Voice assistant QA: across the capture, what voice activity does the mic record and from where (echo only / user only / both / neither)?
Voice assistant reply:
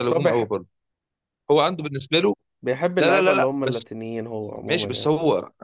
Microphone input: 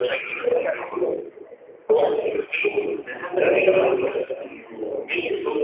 echo only